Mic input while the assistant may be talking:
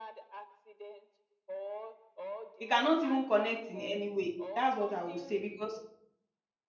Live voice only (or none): They cannot even connect in any way. That's what I would say because